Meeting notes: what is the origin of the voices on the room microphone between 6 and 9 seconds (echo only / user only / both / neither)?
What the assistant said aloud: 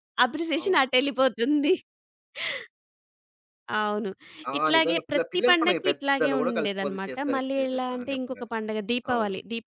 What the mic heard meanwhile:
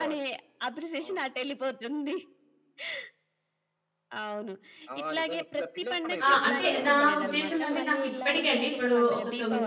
both